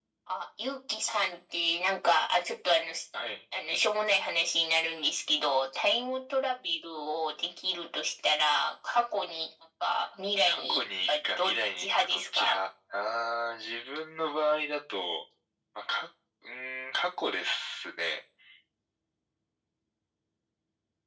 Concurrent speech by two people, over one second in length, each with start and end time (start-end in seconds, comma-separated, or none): 10.5-12.6